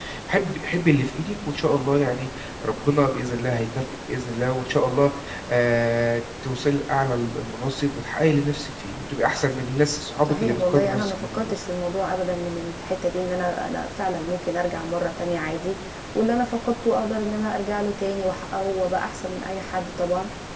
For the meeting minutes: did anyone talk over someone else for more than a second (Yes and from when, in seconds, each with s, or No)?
Yes, from 10.2 s